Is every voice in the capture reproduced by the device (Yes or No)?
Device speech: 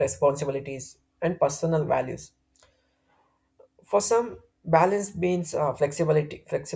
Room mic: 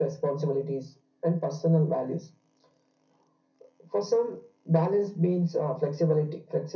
Yes